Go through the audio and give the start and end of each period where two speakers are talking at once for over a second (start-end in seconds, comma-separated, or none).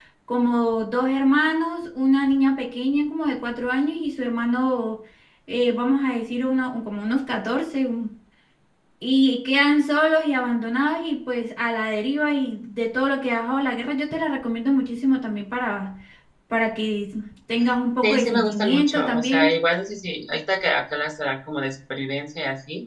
18.0-19.6